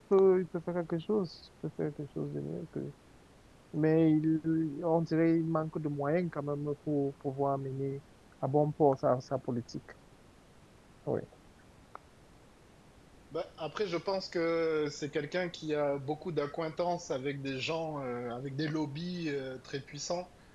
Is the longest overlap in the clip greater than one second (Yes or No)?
No